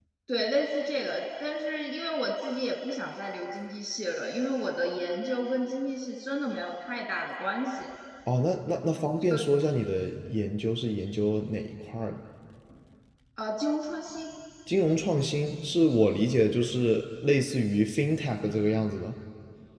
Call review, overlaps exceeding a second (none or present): none